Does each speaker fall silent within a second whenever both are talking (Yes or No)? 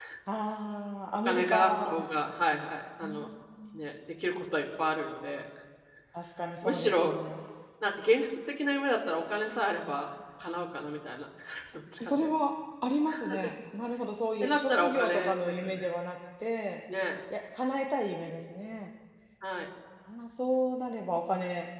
No